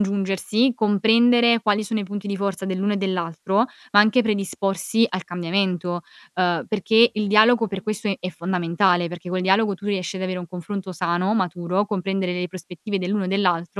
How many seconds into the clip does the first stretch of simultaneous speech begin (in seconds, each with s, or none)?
none